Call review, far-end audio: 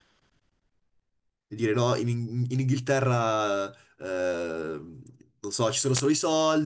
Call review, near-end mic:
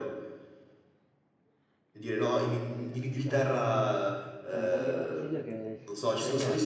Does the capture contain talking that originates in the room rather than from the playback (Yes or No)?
Yes